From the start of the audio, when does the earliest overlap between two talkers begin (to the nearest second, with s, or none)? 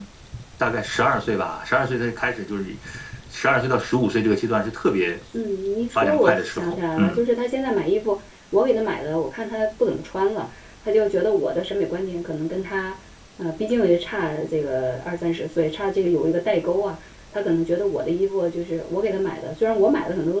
6 s